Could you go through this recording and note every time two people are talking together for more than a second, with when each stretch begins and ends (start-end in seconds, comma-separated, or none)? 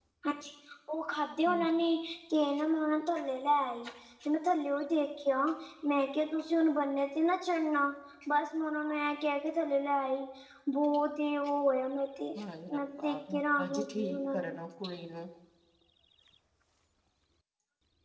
12.7-14.5